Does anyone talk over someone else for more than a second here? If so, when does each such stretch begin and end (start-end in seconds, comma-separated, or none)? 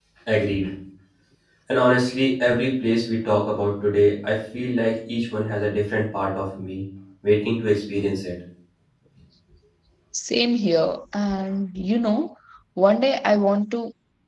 none